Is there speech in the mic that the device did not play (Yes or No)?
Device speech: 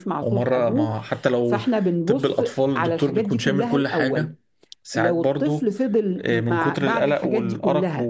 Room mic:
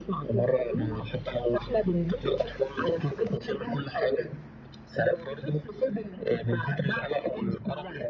No